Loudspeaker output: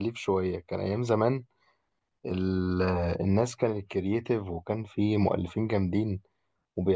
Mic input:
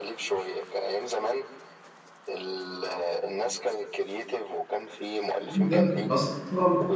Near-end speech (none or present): present